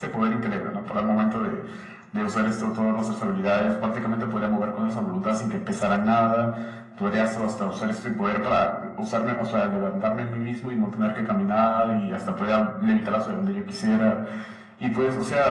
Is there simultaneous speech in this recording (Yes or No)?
No